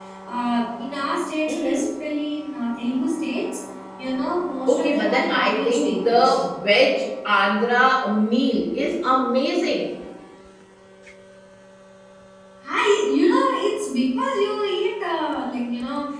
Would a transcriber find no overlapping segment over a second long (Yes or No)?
No